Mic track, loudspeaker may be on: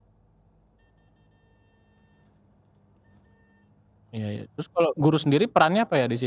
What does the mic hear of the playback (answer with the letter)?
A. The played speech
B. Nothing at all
B